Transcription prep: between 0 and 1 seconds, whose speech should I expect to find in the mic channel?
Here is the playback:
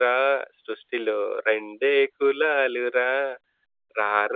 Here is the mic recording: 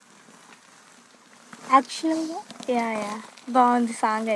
neither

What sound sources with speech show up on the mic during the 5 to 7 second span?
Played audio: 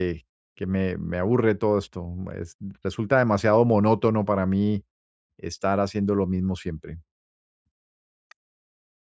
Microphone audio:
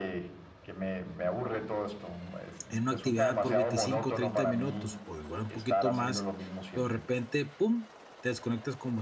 both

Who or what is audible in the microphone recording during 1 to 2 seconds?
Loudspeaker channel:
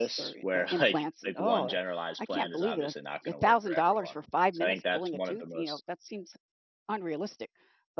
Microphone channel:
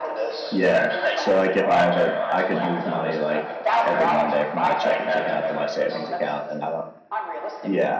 both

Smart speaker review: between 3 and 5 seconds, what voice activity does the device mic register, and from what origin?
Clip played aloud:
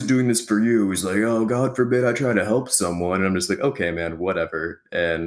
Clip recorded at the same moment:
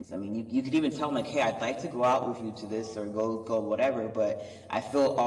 user only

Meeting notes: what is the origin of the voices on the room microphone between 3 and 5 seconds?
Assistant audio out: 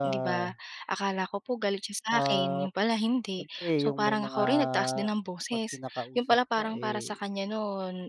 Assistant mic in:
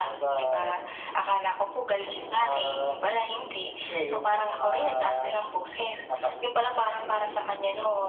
echo only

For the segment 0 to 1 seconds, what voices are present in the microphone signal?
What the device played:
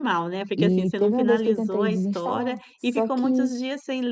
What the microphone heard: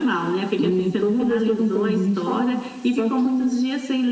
echo only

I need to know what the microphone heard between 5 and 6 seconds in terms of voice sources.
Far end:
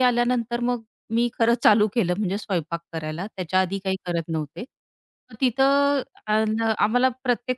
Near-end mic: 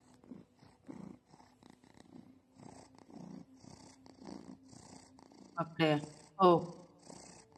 user only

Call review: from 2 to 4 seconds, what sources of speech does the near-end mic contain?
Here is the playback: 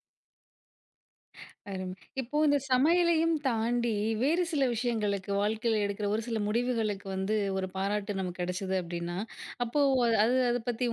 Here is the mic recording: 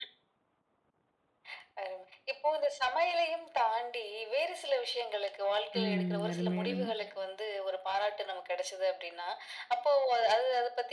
echo only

